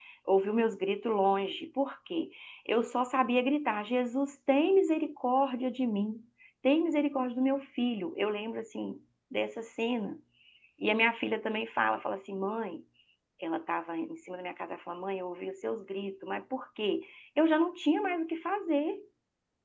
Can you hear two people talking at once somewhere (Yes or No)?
No